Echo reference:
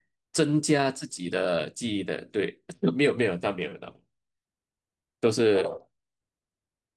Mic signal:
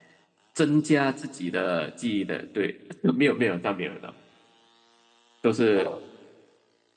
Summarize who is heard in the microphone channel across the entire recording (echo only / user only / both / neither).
echo only